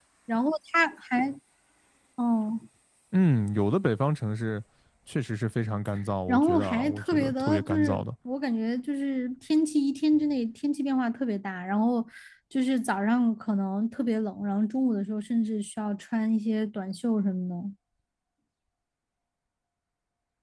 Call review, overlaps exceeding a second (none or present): present